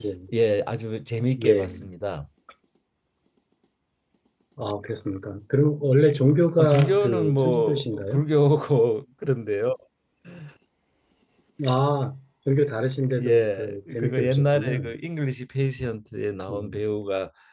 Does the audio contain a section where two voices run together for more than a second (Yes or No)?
Yes